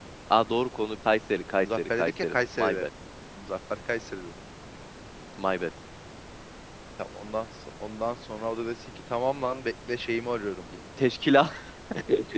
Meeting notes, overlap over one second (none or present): present